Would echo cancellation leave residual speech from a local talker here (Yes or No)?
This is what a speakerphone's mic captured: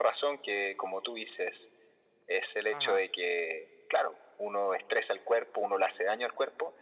Yes